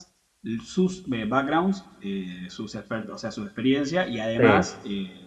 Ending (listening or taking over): listening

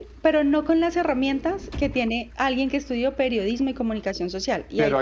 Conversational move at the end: taking over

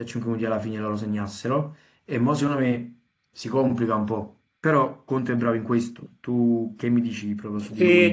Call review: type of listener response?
taking over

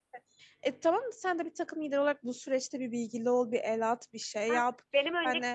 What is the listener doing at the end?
taking over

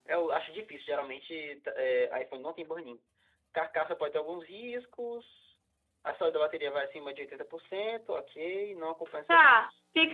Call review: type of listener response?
taking over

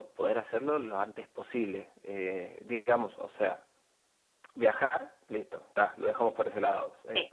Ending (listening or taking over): listening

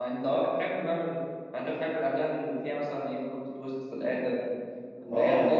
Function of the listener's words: taking over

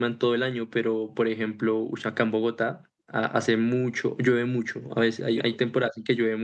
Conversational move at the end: listening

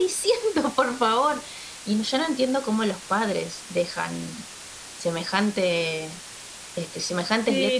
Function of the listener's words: taking over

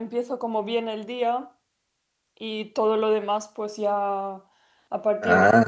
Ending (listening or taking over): listening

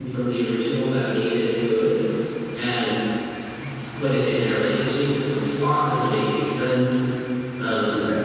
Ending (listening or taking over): taking over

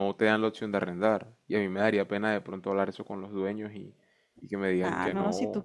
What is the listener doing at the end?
taking over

